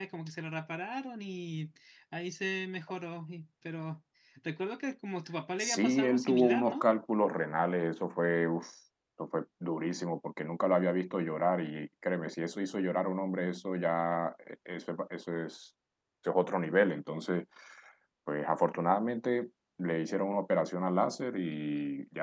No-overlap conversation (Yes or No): No